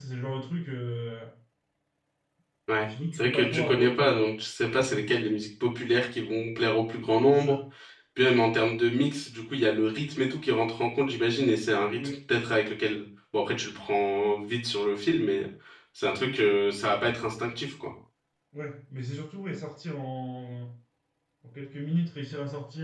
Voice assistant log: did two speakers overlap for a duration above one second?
Yes, from 2.8 s

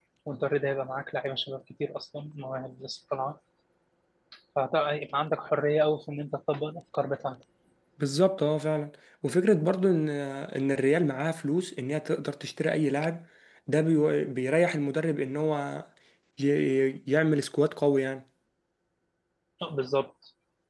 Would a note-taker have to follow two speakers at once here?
No

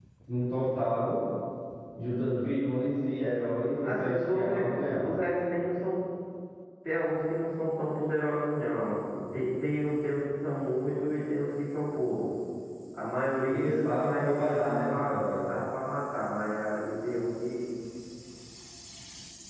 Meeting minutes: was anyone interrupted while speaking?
Yes, from 3.8 s

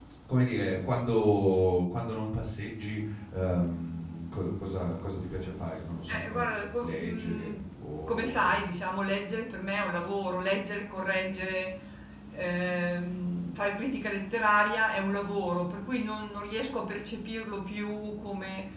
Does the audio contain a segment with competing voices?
Yes, from 6.1 s

